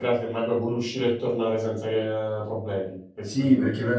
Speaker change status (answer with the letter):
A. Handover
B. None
A